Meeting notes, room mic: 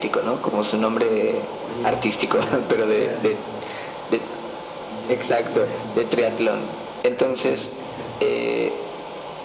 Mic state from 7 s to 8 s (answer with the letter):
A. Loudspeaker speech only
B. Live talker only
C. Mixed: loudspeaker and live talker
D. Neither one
C